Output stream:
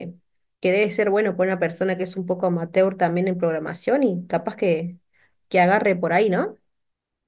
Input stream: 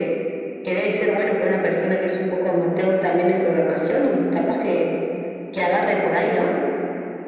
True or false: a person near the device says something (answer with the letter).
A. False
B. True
A